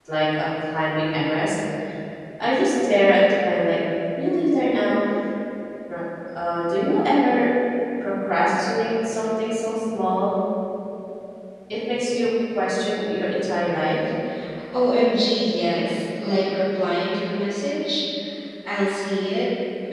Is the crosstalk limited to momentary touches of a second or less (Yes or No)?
Yes